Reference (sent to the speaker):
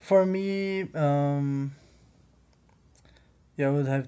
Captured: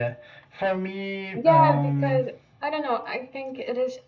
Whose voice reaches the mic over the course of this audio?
both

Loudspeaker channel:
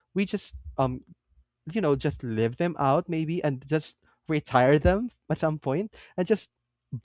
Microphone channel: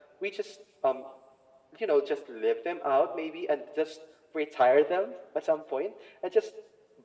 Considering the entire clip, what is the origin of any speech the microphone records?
echo only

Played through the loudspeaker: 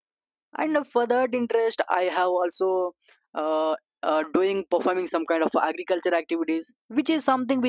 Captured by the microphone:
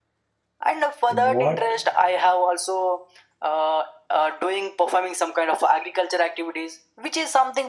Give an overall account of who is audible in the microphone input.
both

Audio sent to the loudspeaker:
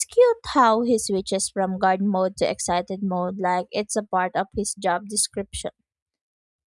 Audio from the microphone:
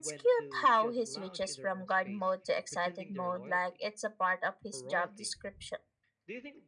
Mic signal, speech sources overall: both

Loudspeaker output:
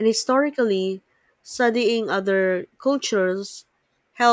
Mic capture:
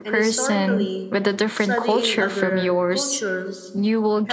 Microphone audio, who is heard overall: both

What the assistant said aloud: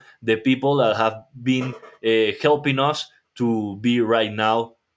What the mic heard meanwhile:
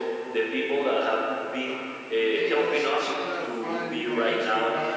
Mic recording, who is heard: both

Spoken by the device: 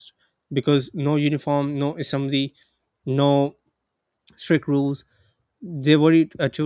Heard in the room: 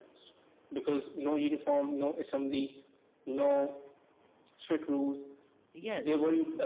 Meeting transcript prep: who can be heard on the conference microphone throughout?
both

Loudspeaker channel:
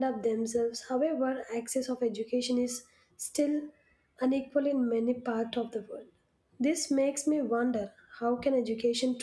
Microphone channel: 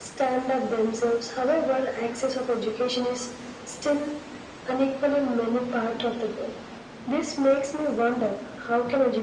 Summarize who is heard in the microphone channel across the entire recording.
echo only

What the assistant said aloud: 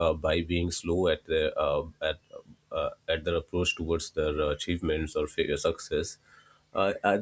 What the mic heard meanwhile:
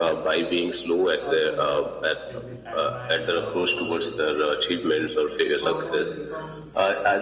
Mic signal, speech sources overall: both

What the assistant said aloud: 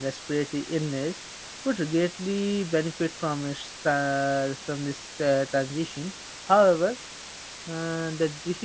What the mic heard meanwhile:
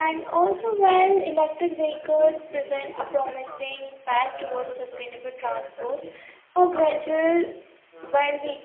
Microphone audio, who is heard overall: both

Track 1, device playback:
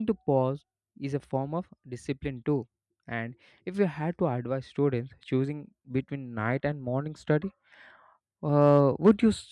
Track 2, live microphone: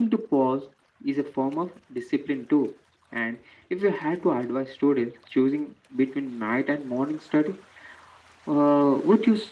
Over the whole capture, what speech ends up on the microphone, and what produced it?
echo only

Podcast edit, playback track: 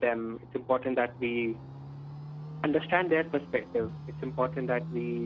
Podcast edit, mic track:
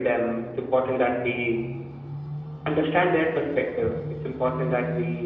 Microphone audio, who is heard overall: echo only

